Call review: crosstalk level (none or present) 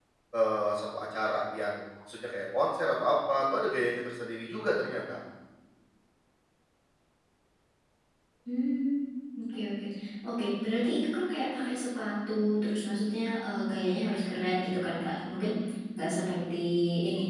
none